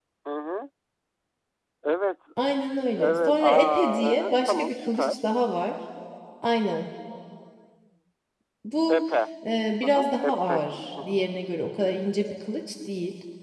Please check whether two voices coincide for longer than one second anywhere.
Yes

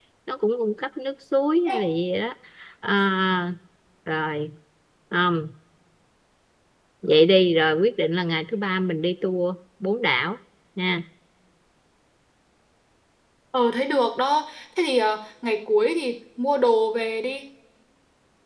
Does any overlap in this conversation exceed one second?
No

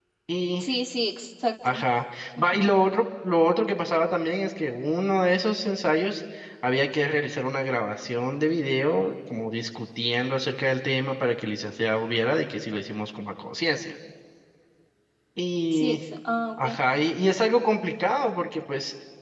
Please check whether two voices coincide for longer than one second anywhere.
No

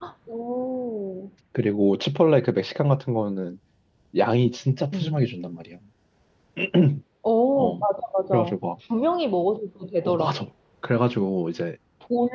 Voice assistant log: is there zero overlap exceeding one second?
Yes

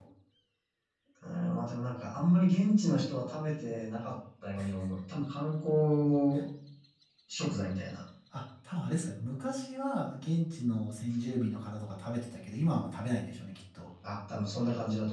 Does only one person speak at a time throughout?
Yes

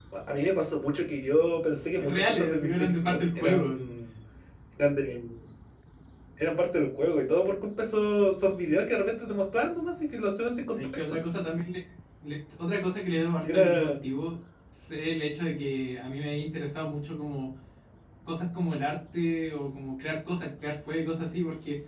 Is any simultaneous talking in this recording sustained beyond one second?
Yes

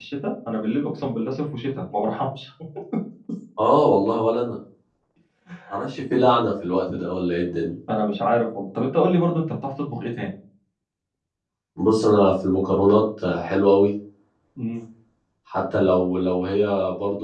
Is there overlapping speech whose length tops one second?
No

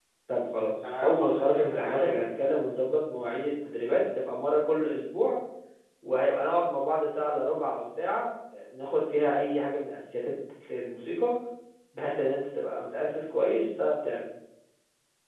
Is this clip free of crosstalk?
No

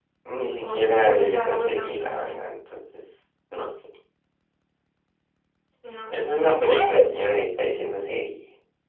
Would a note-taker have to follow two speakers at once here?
Yes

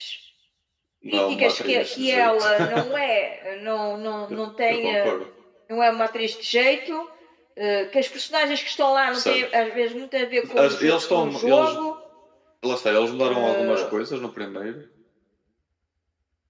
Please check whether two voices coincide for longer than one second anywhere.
Yes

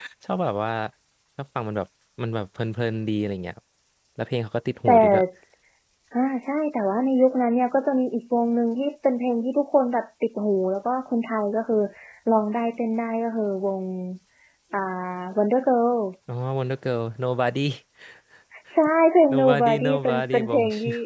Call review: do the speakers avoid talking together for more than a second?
No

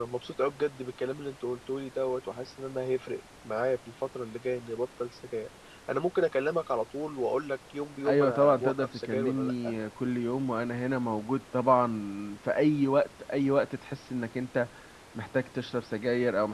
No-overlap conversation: No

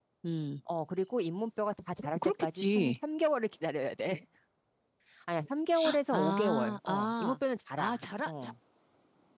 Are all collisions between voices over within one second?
No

